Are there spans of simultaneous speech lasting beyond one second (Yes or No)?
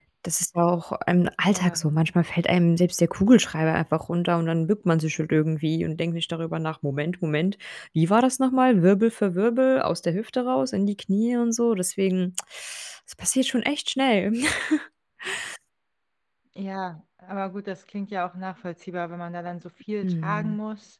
No